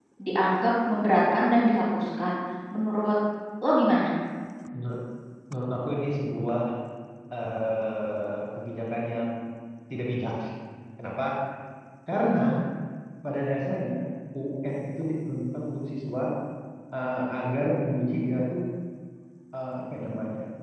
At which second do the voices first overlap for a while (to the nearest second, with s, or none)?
none